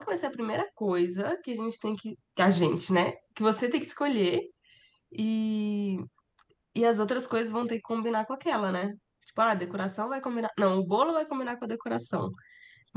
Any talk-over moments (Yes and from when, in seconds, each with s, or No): No